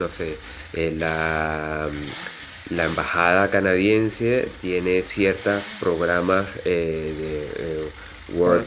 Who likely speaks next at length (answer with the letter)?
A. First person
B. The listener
A